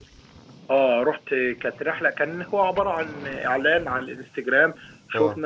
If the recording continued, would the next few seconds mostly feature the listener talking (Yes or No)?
No